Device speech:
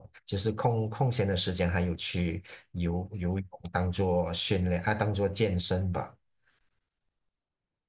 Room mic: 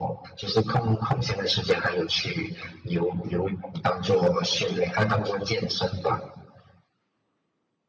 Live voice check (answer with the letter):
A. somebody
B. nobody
B